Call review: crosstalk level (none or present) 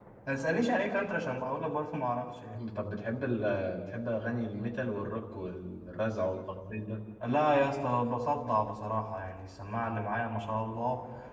none